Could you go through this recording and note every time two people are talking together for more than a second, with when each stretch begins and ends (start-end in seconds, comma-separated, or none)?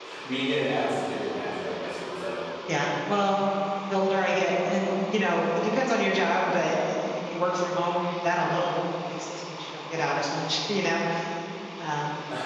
none